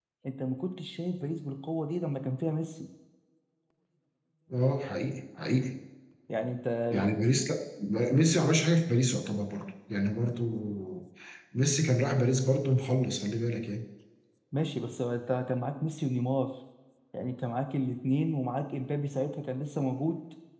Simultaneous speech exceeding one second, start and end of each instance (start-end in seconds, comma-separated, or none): none